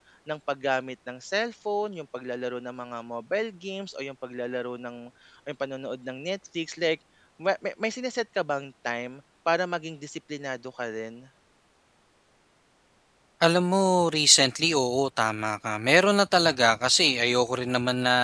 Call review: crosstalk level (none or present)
none